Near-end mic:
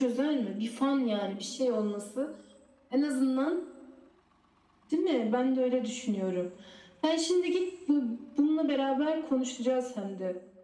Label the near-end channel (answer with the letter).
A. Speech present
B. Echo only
B